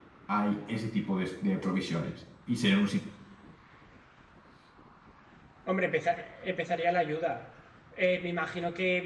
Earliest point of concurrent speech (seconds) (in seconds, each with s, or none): none